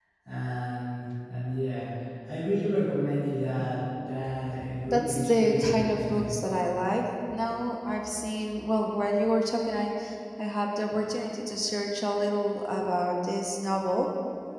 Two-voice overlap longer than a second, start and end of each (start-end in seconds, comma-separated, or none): 4.9-6.4